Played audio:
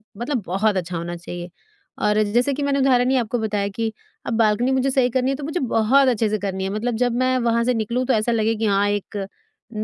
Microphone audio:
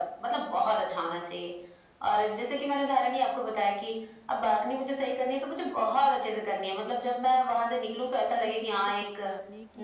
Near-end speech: present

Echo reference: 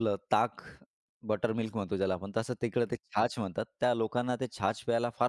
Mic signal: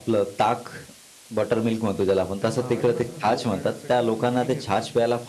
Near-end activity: present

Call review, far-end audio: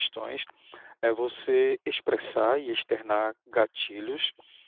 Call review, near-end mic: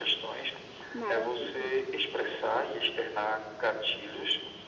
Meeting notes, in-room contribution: present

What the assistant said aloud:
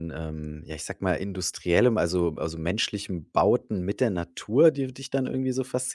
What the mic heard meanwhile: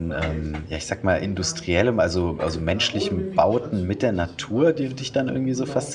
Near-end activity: present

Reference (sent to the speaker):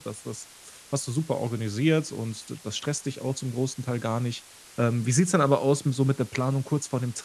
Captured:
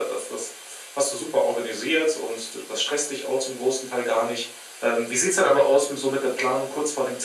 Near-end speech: none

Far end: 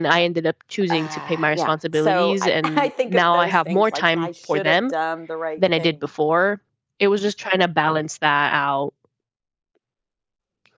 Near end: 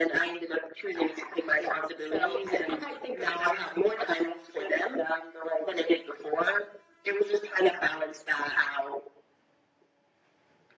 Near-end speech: none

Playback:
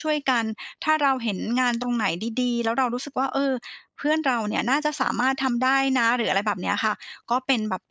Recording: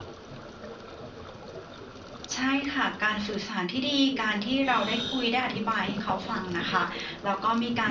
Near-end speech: present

